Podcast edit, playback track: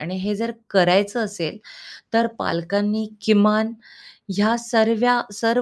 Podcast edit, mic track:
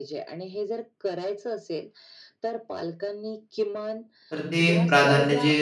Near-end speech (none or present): present